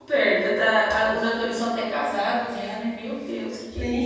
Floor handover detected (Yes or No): Yes